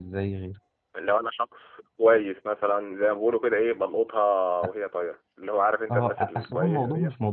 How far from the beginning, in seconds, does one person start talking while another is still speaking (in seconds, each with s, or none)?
5.9 s